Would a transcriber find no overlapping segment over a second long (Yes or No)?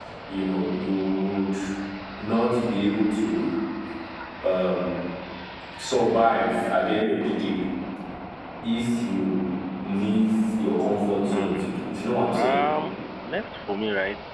Yes